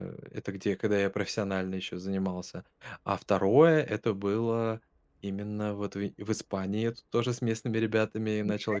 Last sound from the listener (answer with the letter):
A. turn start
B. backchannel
B